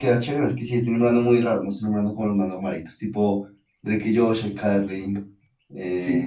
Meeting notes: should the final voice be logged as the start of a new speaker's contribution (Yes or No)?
Yes